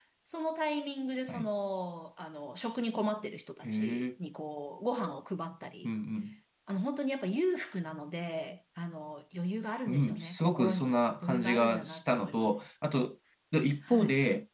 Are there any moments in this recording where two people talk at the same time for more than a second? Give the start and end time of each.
9.9-12.7

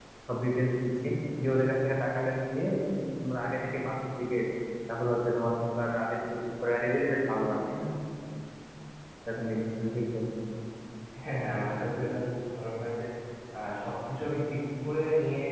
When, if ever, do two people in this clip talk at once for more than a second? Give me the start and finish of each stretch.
none

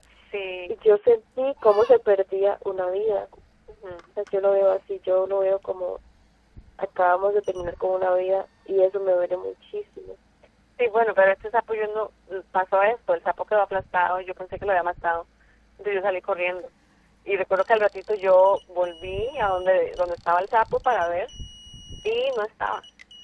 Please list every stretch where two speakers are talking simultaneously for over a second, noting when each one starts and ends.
none

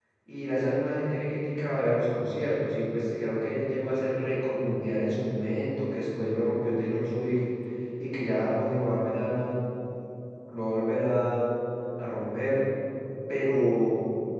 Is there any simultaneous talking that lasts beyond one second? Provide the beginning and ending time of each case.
none

